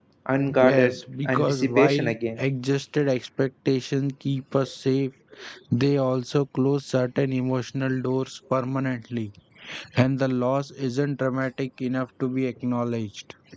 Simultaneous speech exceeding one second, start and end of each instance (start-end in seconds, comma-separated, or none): 0.6-2.4